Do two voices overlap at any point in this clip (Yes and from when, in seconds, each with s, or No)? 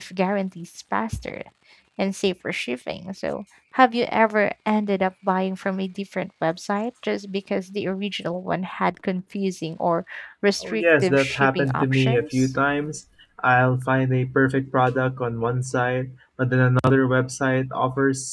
Yes, from 10.6 s